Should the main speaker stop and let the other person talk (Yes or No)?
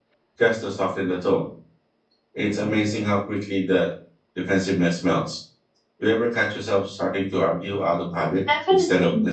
Yes